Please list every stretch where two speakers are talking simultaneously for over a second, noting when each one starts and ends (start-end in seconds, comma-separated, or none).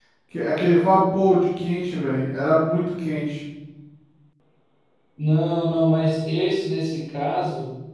none